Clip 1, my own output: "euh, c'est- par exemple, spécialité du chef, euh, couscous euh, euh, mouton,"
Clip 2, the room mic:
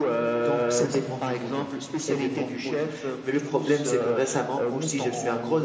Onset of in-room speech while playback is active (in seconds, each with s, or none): 0.4 s